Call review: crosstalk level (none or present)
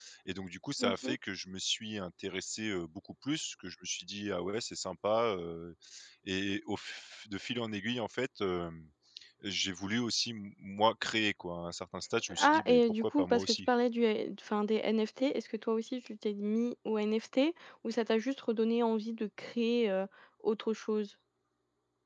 present